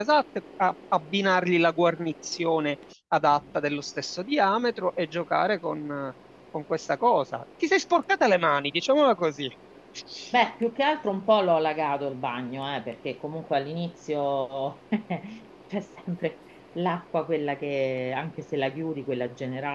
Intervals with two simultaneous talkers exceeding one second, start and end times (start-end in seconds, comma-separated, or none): none